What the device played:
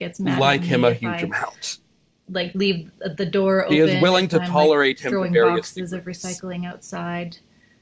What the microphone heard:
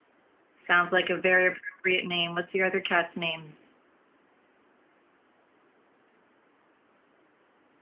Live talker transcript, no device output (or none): Sounds like a very appropriate name. What's your other cat's name?